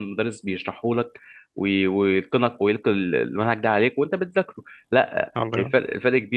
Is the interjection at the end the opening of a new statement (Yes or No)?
No